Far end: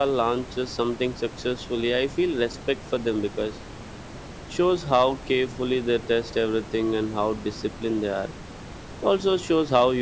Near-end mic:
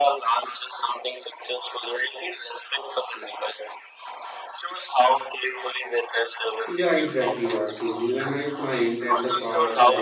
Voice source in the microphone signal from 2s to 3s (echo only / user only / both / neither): echo only